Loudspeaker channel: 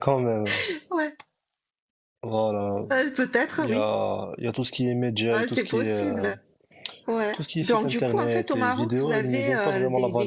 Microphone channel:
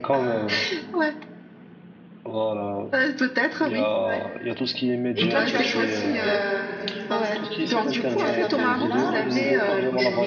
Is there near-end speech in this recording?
Yes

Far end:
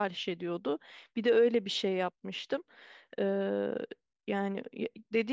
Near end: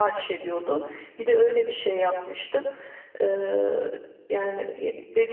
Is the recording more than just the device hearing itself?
No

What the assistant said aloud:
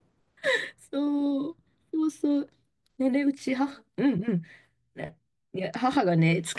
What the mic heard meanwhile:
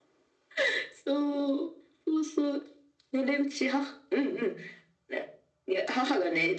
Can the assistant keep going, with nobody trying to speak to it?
Yes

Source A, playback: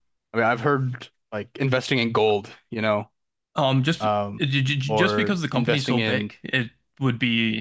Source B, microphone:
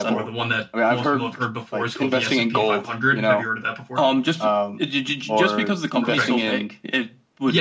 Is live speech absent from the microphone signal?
No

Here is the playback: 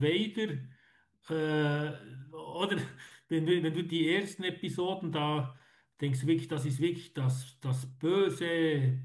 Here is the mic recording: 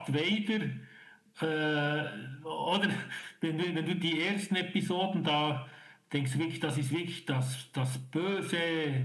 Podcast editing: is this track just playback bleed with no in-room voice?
Yes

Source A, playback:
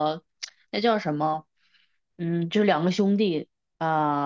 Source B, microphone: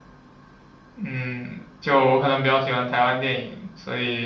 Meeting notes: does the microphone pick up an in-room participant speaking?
Yes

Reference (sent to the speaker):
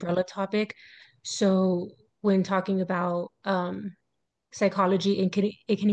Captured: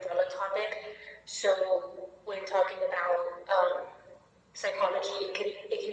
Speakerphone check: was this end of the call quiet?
Yes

